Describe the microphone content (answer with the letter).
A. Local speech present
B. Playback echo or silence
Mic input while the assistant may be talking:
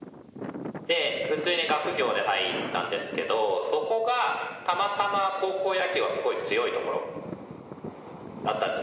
B